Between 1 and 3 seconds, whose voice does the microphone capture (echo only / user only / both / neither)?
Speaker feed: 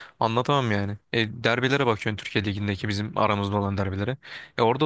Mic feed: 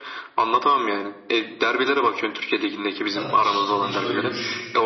echo only